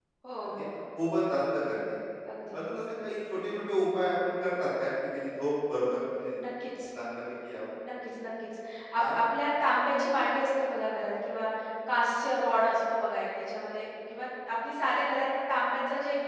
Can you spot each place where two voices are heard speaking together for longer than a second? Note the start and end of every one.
none

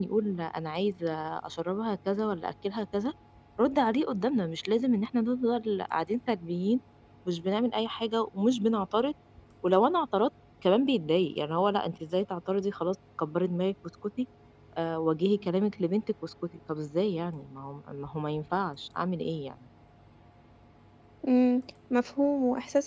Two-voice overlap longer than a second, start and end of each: none

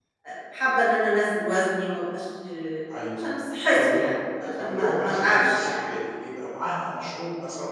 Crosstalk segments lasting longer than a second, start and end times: 4.4-5.8

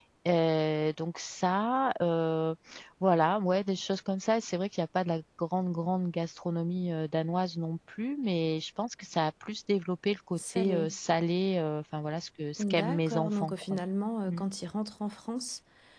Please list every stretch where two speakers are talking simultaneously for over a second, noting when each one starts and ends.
12.6-13.8

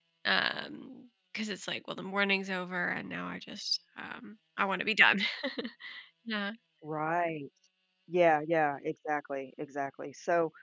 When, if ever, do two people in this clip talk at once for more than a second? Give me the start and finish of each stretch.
none

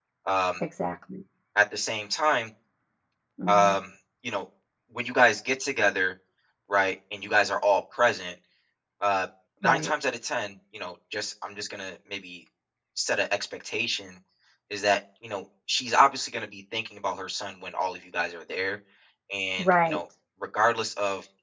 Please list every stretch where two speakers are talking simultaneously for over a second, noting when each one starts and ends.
none

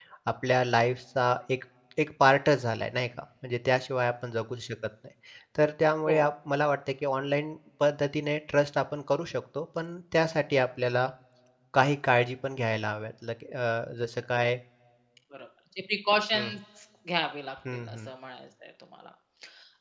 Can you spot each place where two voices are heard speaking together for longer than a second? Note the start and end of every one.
none

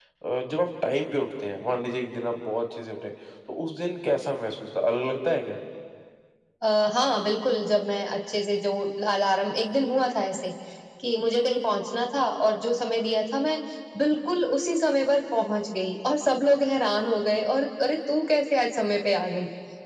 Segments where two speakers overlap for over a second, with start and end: none

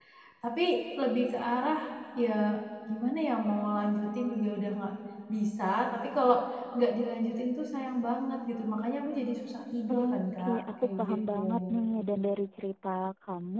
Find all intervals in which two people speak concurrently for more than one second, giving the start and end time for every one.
9.9-11.8

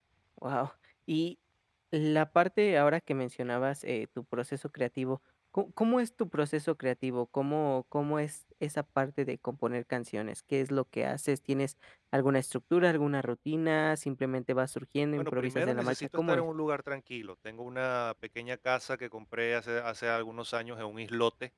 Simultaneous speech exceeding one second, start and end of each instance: 15.2-16.4

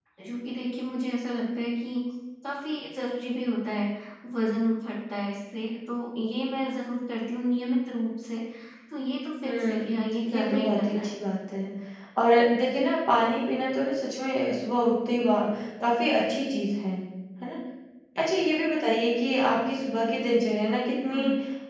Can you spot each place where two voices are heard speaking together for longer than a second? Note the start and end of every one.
9.4-11.1

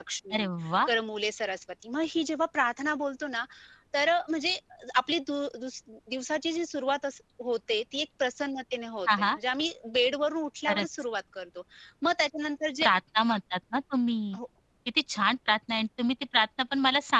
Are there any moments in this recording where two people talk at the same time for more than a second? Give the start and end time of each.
none

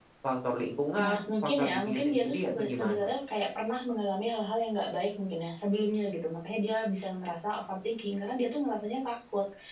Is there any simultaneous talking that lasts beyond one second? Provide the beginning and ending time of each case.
1.0-3.1

